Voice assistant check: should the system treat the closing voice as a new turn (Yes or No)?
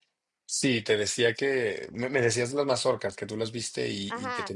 Yes